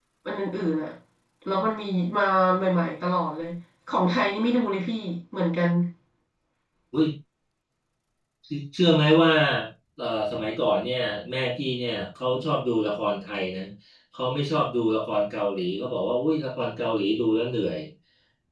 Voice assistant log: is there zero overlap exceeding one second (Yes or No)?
Yes